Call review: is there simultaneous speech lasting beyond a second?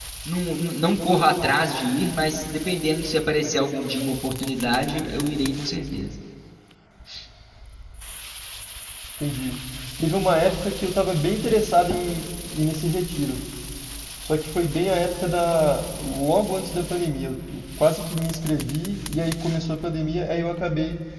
No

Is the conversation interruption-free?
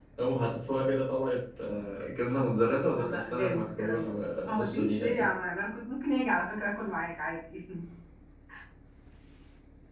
No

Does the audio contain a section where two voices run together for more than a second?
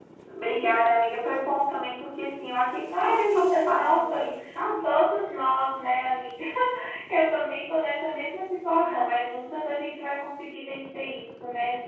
Yes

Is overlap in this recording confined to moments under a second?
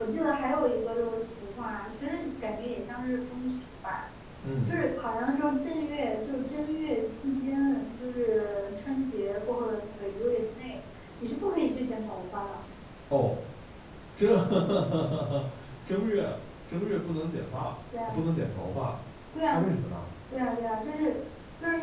Yes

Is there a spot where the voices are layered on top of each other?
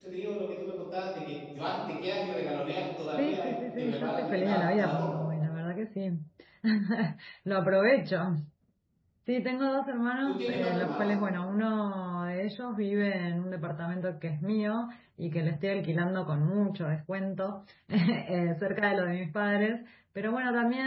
Yes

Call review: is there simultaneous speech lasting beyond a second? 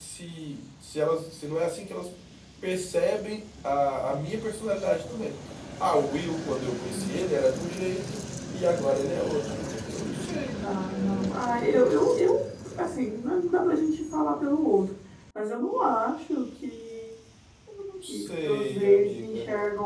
Yes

